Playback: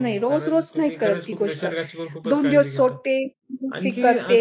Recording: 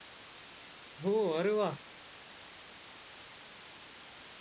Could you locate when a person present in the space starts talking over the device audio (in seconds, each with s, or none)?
1.1 s